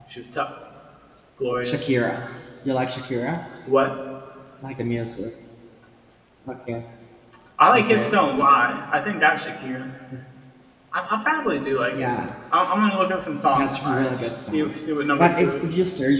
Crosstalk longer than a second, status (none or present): present